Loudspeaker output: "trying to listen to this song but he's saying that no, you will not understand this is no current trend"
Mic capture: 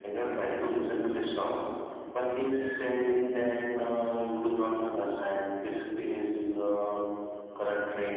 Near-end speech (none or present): none